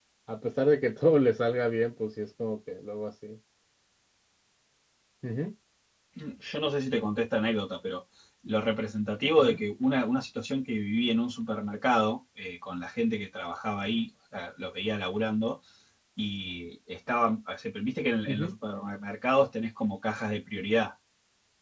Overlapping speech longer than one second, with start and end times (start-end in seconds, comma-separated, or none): none